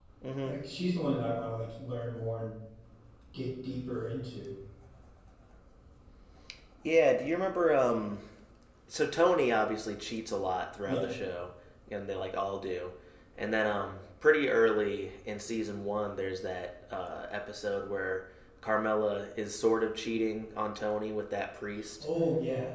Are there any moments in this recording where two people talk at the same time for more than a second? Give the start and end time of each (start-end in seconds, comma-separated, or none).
none